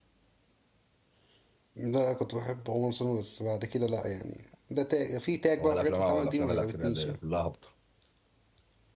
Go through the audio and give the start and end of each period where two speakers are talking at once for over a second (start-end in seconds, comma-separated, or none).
5.6-7.2